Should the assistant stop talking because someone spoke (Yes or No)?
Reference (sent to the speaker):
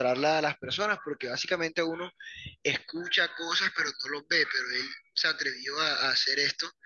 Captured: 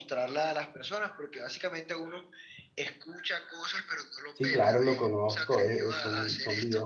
Yes